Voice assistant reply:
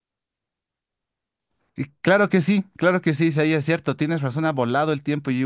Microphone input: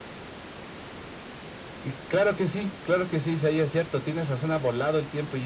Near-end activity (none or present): none